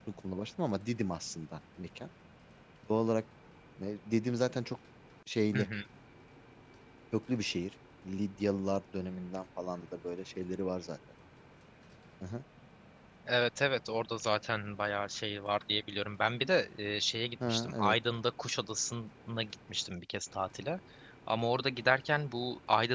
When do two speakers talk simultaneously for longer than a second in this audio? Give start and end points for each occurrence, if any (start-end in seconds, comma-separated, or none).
none